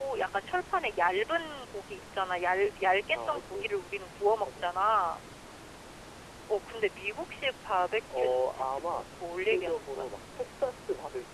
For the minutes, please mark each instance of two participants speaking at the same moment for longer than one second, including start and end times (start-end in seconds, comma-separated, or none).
8.2-10.1